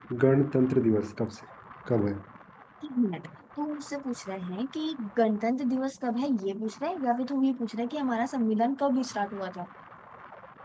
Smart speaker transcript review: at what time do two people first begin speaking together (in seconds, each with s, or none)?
none